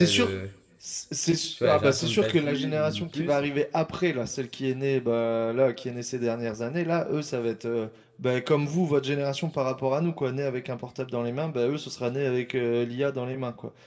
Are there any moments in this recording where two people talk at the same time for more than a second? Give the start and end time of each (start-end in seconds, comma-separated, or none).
1.6-3.4